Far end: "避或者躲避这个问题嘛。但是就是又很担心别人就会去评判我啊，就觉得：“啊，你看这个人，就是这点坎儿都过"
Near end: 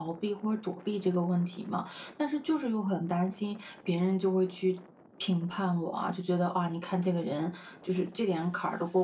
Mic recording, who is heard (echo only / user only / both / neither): echo only